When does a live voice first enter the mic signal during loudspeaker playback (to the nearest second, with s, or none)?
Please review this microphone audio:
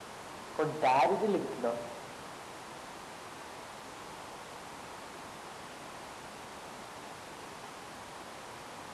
1 s